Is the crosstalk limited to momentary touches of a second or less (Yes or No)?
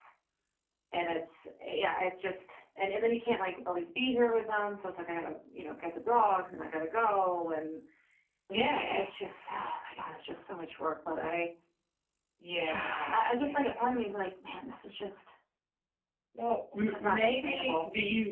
No